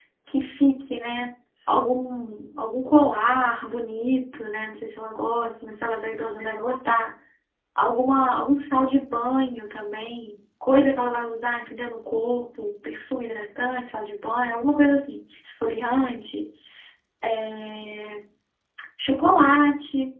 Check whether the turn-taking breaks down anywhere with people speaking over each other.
No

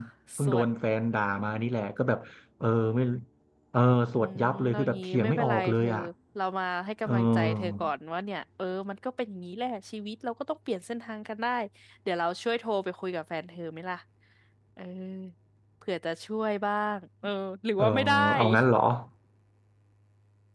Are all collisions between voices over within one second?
No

